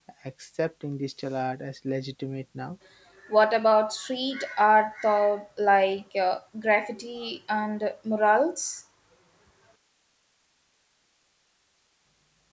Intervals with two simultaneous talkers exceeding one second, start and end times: none

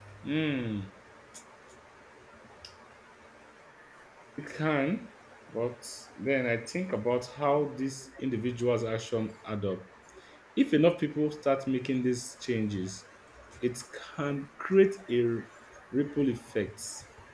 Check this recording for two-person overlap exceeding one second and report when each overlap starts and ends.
none

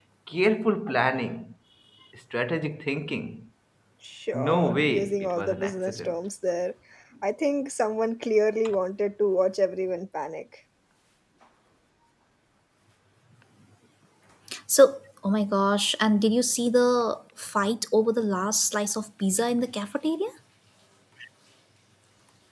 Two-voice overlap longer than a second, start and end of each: 4.3-6.1

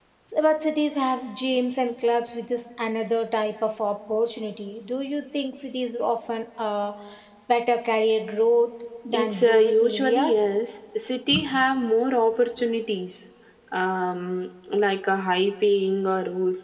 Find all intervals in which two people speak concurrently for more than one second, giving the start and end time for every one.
9.1-10.5

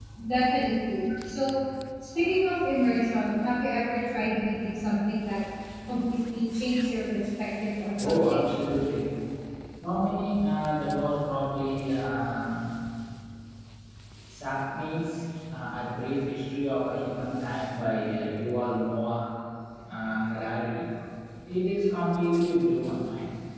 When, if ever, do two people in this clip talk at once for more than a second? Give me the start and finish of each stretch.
none

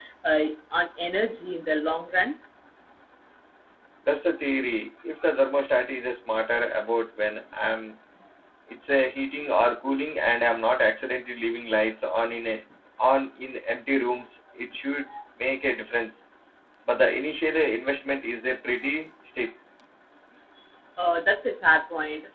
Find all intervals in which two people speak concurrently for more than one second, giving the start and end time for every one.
none

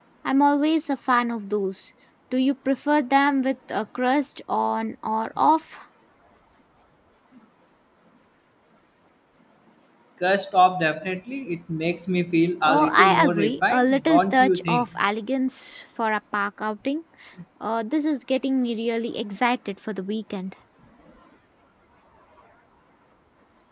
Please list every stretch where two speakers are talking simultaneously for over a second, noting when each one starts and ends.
12.6-14.8

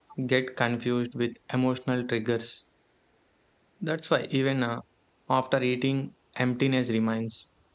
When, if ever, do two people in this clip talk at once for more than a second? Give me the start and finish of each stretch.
none

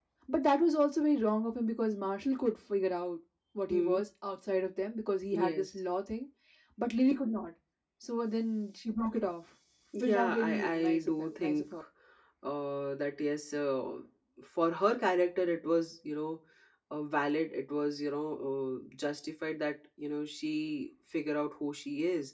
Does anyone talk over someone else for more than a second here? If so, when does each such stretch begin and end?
10.0-11.7

